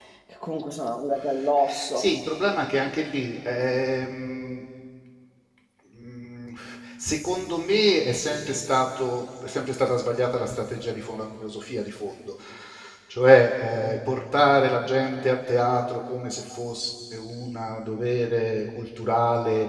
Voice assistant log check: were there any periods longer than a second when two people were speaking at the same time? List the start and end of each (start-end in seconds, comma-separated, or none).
none